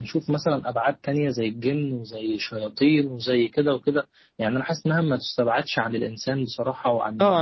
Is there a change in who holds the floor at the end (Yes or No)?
Yes